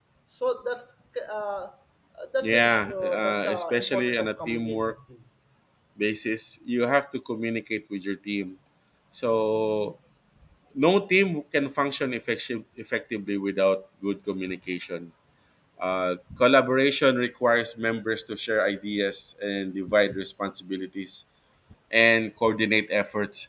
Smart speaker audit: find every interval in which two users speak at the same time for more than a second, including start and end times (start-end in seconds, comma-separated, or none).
2.4-4.9